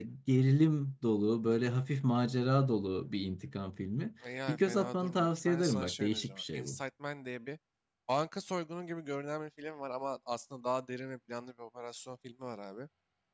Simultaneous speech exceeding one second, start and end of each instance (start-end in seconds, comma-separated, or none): 4.5-6.8